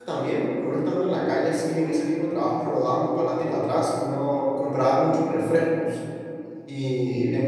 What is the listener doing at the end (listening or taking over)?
listening